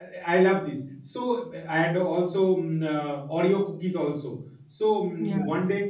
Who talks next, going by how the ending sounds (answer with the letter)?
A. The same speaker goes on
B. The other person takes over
A